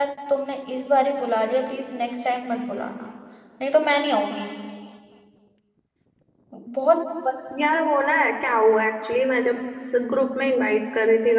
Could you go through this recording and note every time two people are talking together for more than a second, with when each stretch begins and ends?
none

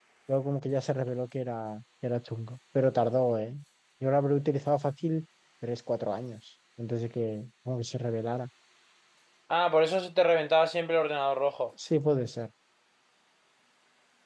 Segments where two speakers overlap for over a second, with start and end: none

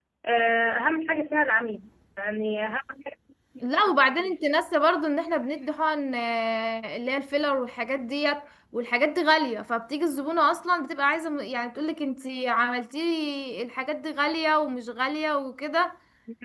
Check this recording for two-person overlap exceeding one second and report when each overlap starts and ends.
none

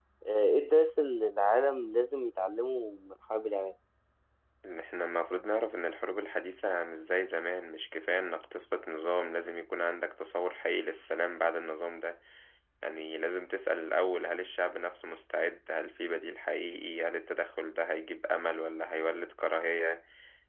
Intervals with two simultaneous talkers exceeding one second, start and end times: none

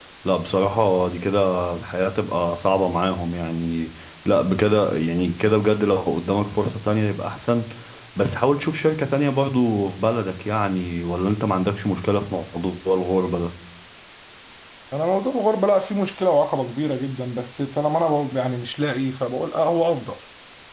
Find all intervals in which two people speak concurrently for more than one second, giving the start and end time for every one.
none

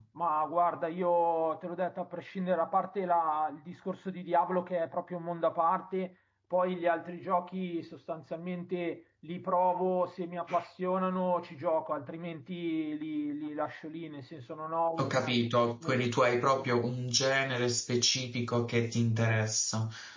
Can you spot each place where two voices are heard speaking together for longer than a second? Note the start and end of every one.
none

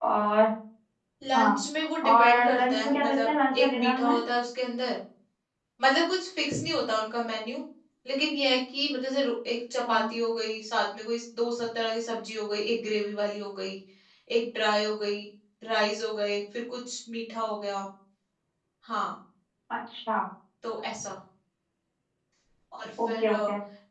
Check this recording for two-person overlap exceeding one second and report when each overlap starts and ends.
2.0-4.1

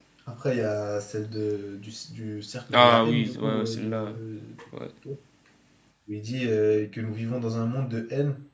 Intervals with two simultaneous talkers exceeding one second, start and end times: 2.7-4.1

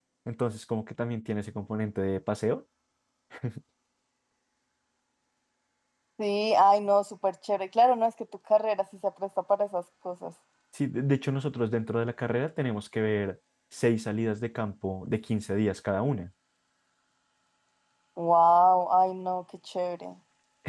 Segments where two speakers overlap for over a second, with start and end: none

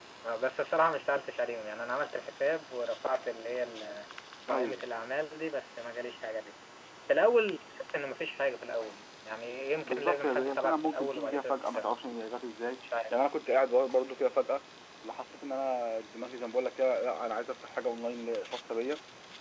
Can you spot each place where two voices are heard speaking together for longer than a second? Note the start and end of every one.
9.8-11.9

